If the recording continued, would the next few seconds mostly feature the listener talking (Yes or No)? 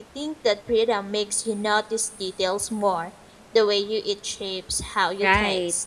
Yes